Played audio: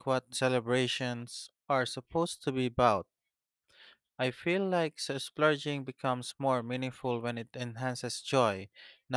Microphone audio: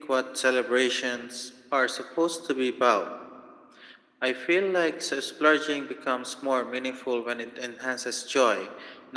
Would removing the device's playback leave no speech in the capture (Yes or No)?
Yes